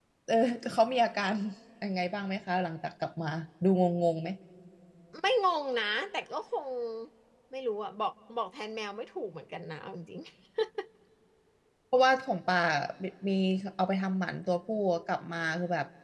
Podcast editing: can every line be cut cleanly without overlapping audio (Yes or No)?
Yes